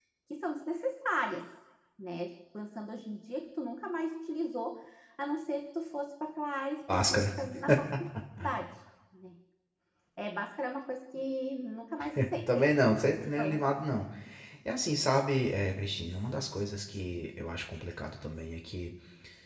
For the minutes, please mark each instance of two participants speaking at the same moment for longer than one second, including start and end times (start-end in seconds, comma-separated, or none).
none